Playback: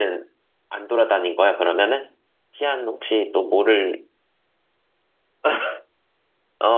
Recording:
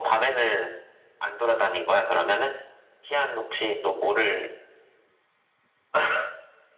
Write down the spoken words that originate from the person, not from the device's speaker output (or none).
none